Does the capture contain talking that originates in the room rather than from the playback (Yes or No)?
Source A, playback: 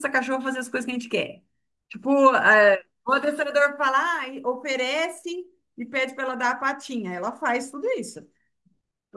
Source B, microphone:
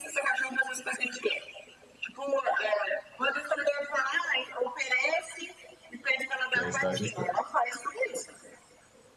Yes